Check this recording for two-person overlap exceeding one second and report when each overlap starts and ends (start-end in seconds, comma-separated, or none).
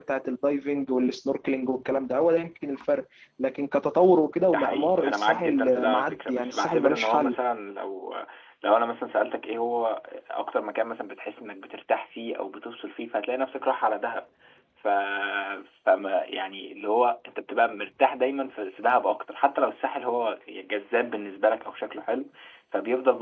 4.4-7.4